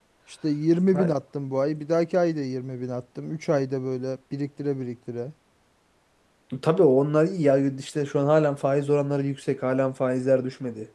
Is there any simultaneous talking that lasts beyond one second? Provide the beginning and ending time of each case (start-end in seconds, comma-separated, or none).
none